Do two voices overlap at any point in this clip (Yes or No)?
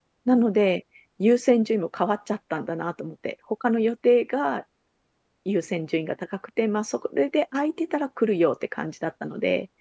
No